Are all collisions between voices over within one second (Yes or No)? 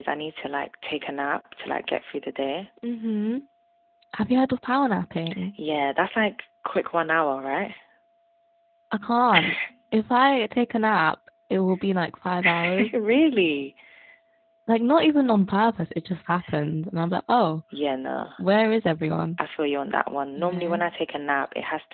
Yes